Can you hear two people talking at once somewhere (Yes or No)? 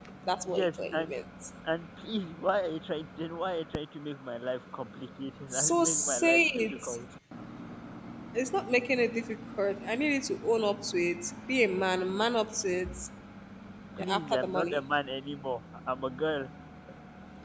Yes